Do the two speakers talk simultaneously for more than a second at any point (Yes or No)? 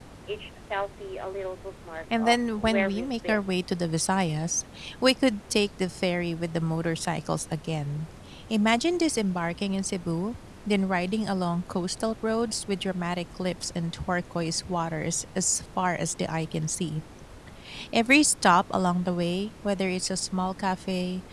Yes